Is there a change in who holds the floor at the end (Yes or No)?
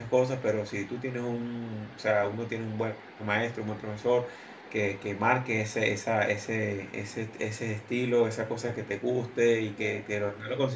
No